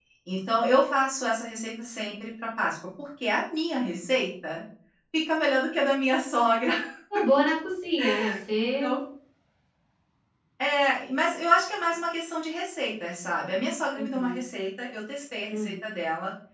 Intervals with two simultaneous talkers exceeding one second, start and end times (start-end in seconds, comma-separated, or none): none